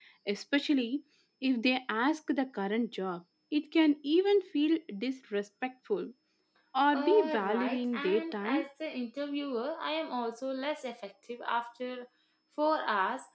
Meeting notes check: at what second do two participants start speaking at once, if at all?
6.9 s

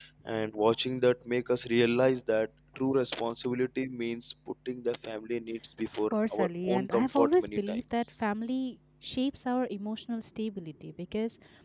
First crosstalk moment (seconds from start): 6.1 s

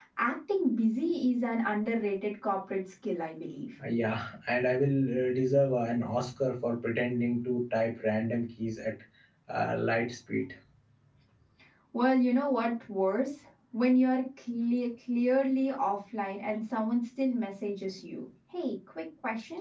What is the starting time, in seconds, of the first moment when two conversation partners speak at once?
none

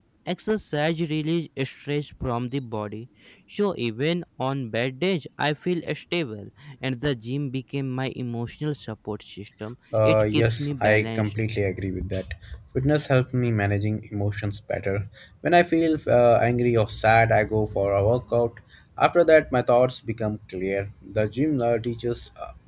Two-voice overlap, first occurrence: 9.9 s

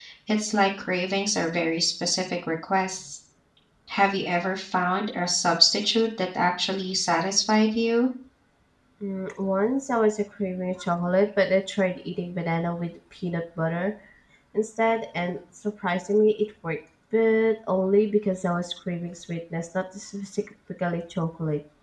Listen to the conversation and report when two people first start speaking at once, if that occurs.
none

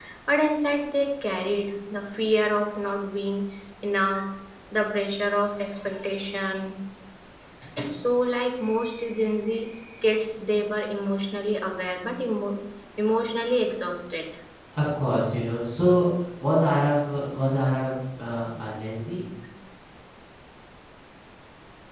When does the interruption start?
none

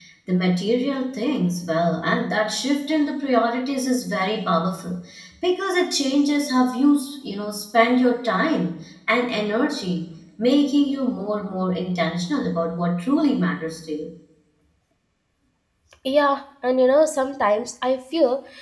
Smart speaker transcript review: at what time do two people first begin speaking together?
none

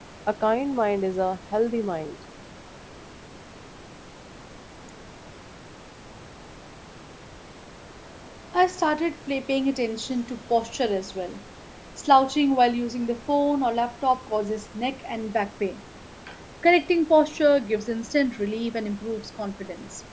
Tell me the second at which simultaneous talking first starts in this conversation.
none

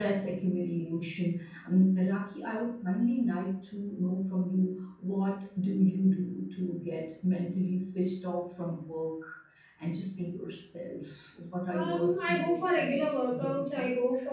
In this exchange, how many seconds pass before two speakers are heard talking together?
11.7 s

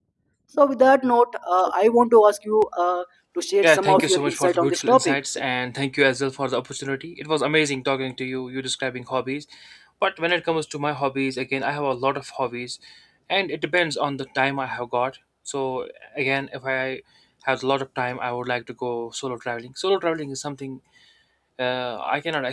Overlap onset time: 3.6 s

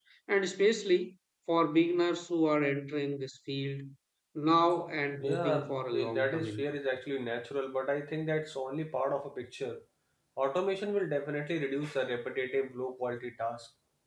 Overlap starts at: 5.2 s

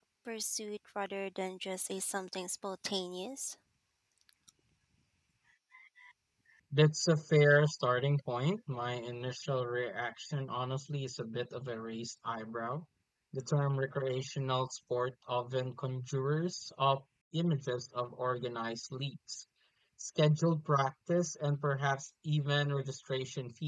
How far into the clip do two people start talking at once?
none

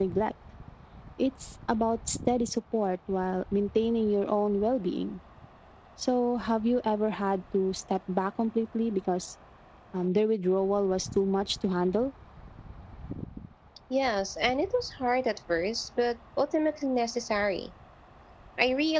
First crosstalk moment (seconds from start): none

